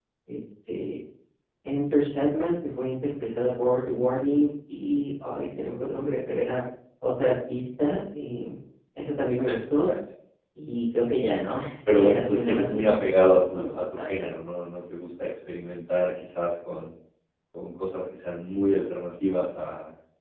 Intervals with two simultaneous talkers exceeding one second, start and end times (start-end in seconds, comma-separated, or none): 11.9-14.3